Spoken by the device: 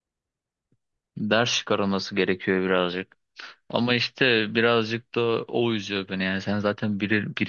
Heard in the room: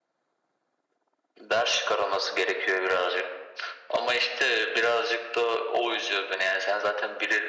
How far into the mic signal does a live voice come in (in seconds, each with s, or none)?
none